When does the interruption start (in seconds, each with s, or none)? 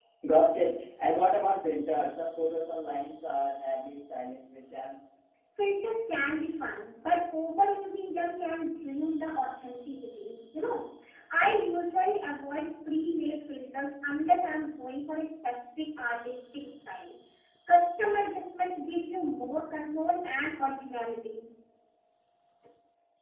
none